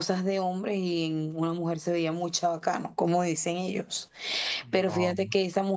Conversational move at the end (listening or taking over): listening